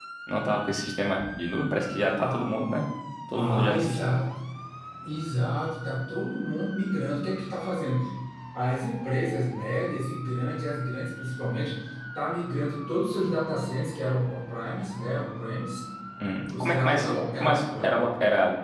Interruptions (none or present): present